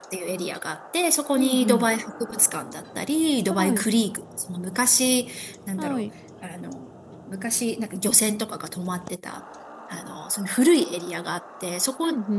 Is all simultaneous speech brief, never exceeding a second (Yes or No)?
Yes